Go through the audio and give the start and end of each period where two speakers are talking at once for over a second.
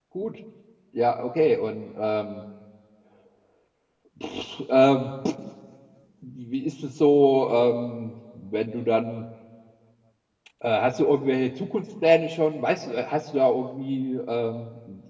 none

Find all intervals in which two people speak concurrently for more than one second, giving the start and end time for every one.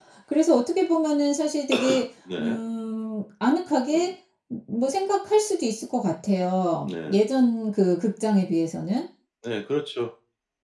none

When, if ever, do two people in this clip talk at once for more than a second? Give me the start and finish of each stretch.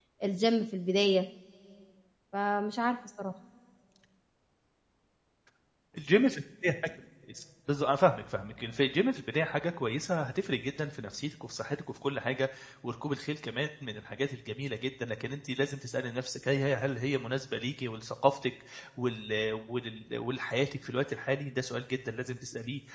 none

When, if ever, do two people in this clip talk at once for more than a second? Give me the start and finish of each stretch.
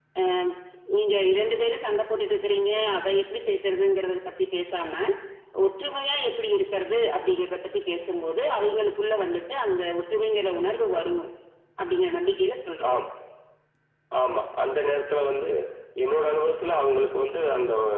none

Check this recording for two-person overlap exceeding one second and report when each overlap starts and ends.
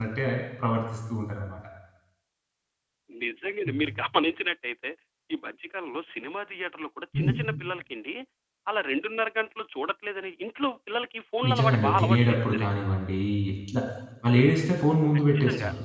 11.5-12.7

